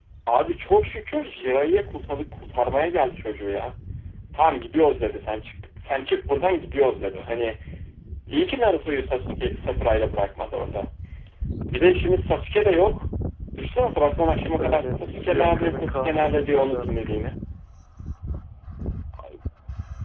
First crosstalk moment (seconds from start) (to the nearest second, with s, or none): 14 s